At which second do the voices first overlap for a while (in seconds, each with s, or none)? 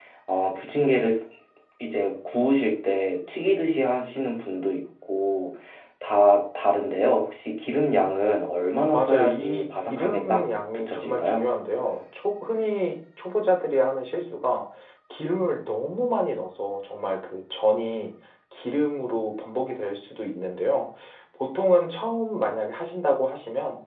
8.9 s